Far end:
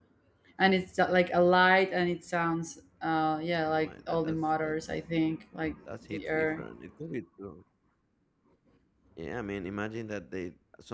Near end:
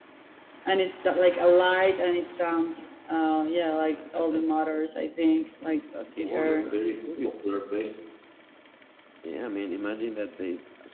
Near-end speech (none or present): present